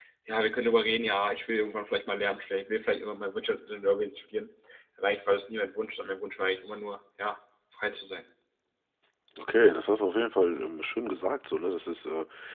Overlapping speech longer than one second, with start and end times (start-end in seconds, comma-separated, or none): none